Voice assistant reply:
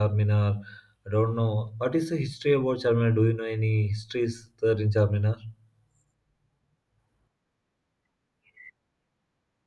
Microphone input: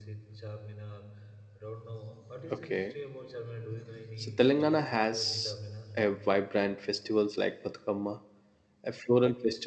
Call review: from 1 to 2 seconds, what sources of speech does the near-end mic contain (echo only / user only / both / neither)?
echo only